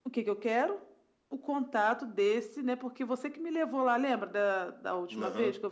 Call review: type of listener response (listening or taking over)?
taking over